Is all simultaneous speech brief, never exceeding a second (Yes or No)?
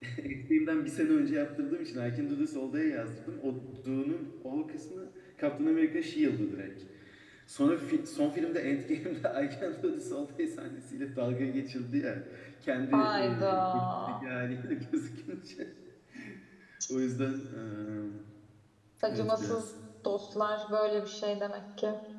No